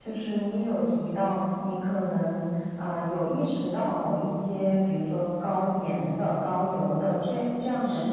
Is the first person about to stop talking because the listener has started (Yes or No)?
No